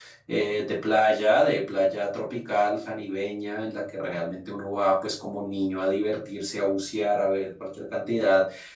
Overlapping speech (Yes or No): No